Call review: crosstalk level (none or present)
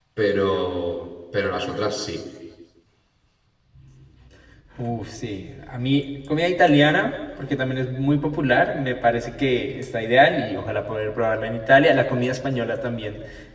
none